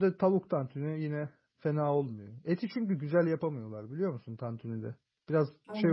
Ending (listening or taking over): listening